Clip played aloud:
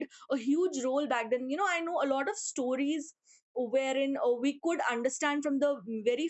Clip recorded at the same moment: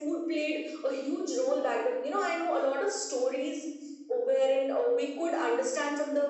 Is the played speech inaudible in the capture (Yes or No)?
No